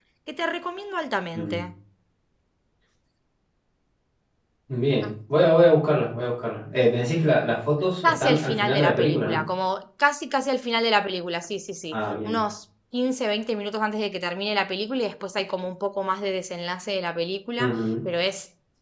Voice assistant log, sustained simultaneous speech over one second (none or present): present